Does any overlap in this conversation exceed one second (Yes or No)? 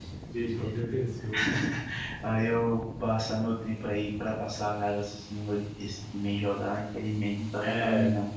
No